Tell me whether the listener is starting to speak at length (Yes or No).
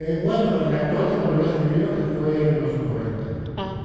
No